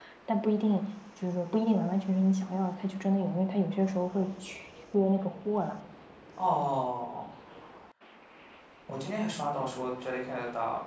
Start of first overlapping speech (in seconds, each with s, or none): none